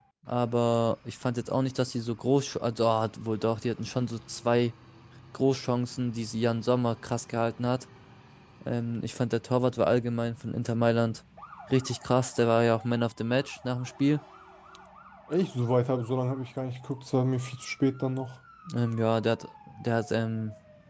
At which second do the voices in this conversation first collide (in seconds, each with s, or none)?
none